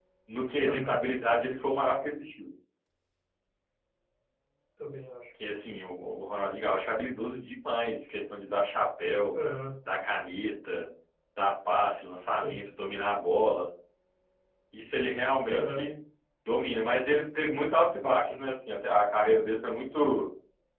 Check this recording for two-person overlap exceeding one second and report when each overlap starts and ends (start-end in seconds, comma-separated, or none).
none